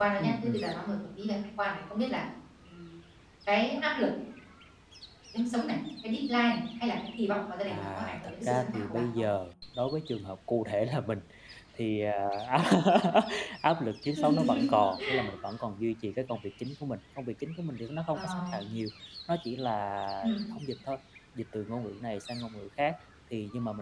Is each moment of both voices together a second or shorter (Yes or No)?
No